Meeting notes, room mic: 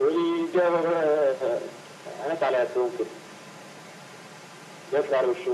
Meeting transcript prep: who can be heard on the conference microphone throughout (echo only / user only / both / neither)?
echo only